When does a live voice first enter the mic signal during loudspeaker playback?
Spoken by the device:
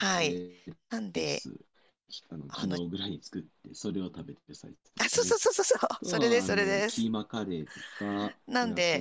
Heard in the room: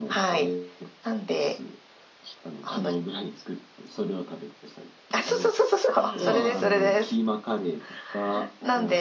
6.0 s

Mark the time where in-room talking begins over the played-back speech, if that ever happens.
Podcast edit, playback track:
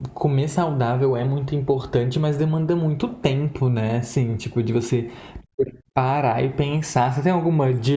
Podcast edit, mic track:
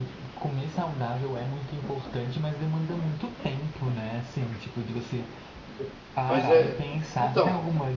6.3 s

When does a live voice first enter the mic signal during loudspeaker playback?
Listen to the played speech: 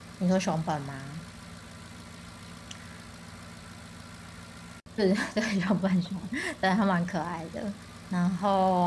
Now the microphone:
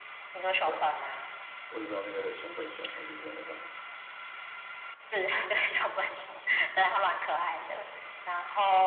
0.6 s

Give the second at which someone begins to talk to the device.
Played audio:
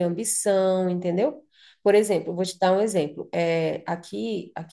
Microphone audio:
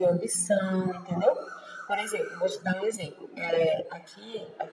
none

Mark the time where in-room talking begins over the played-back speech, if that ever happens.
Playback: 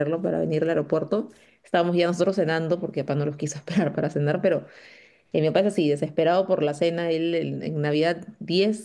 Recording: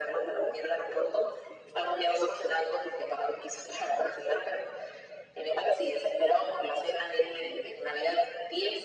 none

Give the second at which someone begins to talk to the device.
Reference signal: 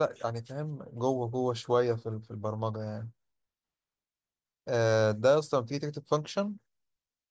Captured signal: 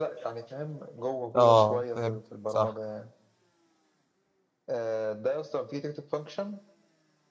1.4 s

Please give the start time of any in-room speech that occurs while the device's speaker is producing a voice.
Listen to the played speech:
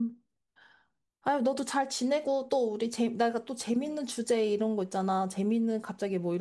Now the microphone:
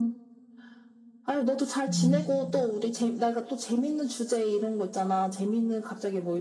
1.9 s

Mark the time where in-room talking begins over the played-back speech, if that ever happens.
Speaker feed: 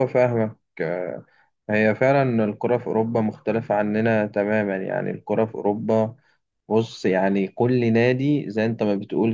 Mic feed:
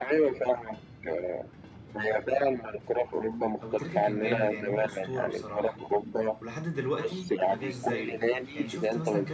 3.6 s

